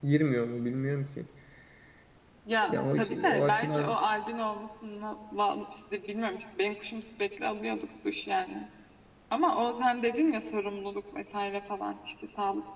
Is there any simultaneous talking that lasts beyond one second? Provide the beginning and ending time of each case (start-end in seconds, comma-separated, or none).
2.7-4.0